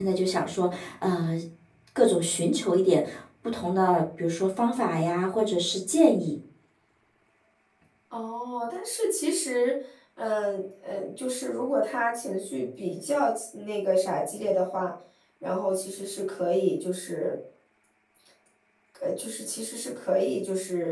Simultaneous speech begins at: none

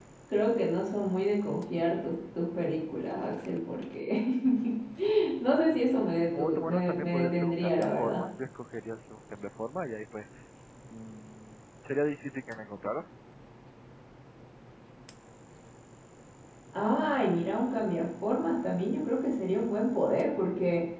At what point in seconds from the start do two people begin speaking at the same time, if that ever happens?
6 s

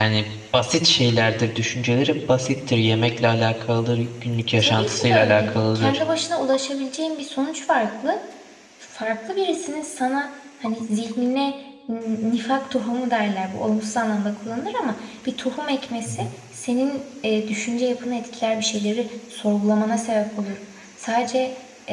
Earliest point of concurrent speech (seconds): 5 s

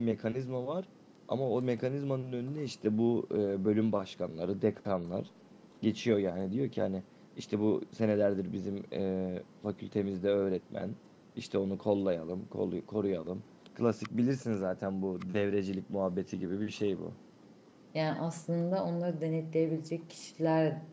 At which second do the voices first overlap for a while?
none

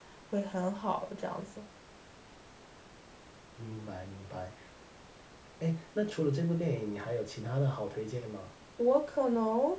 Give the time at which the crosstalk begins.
none

